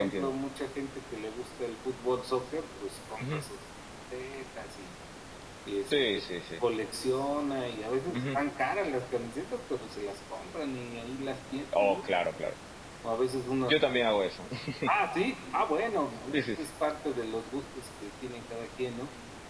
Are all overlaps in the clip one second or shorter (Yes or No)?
Yes